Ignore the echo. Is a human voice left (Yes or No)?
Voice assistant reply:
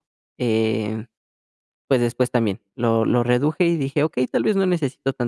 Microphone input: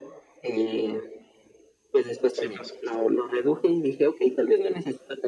Yes